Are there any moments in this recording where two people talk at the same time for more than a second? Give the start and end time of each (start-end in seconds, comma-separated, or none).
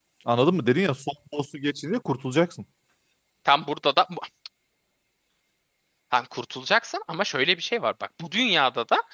none